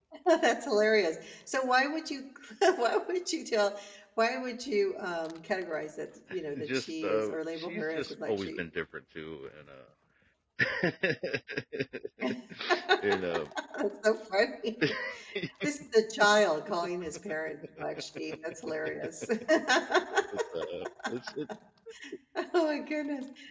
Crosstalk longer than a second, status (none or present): present